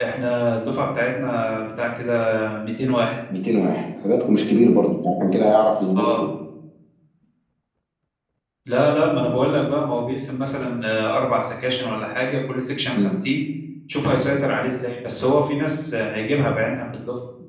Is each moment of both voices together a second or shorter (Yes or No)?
Yes